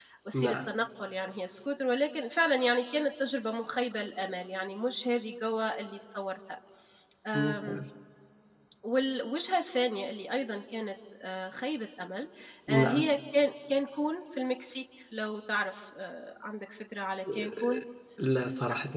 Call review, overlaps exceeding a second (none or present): none